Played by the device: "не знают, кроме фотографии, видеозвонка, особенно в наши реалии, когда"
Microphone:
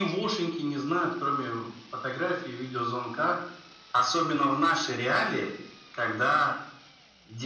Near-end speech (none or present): none